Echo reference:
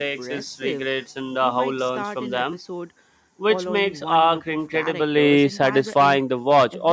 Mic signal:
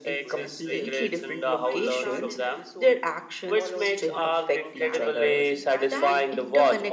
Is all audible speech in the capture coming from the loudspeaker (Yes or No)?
No